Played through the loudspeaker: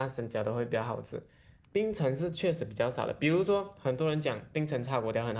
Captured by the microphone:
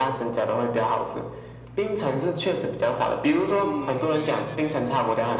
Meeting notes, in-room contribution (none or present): present